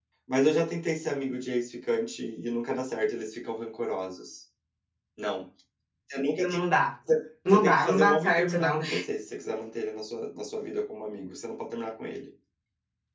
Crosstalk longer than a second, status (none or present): present